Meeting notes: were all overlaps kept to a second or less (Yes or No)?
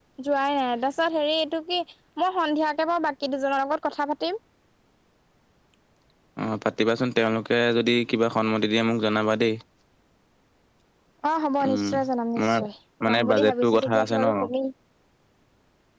No